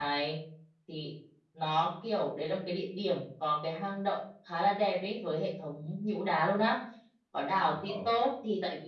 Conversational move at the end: listening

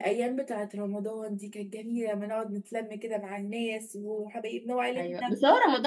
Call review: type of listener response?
taking over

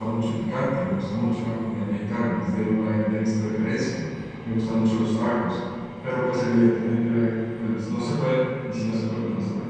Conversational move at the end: taking over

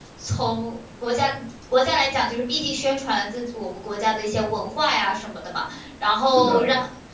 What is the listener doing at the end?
listening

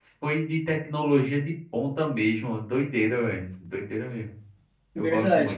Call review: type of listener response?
taking over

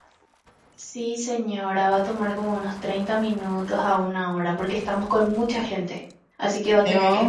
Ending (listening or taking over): taking over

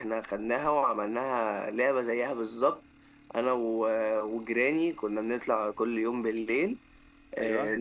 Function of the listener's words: listening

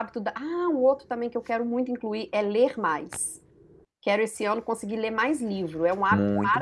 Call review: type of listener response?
taking over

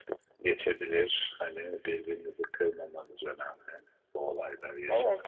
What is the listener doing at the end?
taking over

